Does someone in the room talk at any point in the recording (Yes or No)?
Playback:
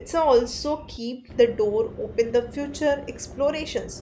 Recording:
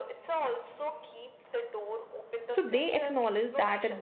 Yes